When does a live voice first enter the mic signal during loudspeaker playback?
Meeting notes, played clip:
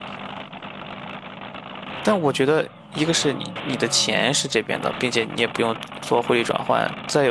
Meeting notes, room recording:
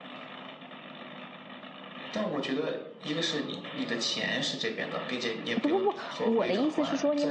5.6 s

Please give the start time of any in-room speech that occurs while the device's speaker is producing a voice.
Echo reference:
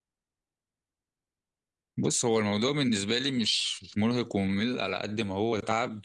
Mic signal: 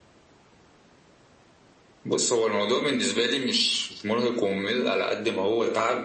none

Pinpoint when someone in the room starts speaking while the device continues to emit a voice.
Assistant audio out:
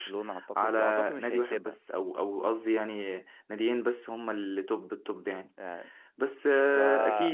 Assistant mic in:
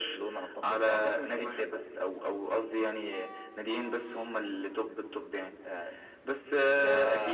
none

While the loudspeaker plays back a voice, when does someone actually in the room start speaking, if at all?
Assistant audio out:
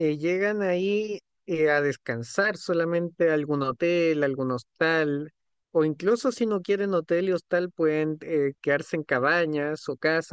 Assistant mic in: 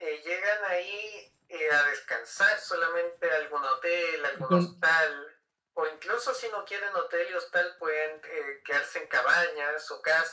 4.3 s

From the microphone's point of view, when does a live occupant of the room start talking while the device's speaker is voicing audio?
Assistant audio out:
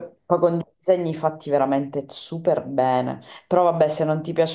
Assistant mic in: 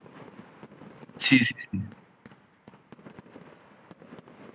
1.2 s

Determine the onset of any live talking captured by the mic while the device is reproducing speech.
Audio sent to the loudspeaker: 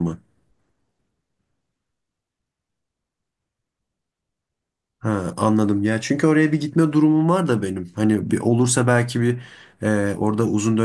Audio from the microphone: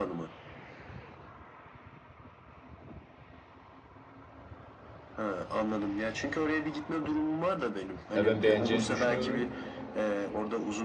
8.1 s

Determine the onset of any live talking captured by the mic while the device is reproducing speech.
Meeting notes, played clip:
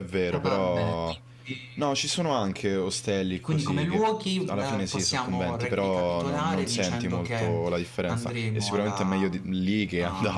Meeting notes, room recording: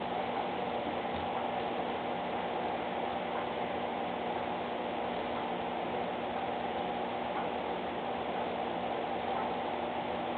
none

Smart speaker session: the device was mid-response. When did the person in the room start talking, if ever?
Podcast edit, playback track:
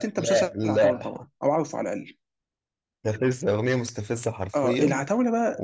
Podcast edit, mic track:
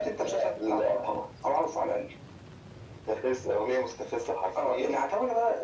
none

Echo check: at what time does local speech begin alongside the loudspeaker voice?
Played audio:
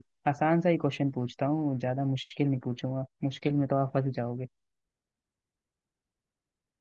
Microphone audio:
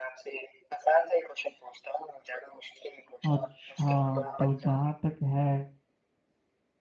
3.3 s

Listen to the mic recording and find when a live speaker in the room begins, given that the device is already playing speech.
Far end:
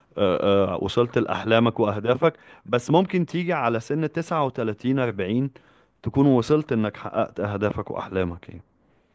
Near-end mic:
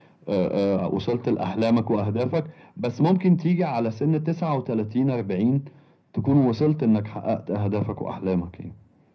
none

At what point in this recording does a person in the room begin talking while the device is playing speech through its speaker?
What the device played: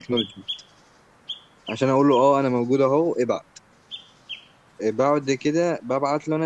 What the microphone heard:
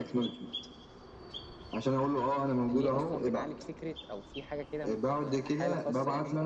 2.7 s

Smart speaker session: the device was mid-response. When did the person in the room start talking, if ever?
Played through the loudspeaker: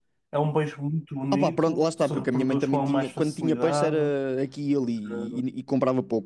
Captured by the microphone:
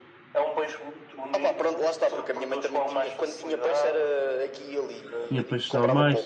5.3 s

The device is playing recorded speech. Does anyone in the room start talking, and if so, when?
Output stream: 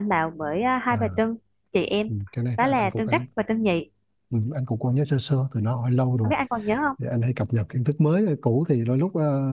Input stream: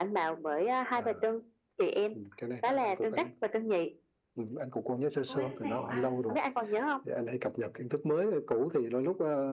5.2 s

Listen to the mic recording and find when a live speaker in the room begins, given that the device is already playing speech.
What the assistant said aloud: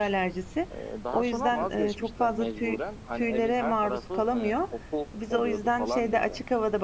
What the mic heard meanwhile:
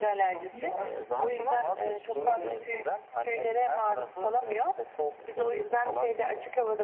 0.3 s

